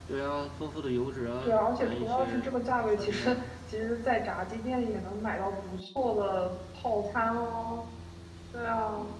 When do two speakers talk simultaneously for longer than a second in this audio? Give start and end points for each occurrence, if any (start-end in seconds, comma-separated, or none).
1.4-3.5